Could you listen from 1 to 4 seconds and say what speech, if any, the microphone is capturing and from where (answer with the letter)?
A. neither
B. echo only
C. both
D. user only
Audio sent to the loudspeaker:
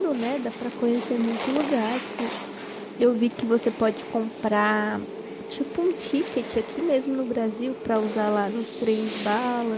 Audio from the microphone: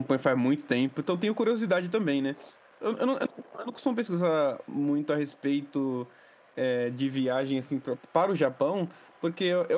D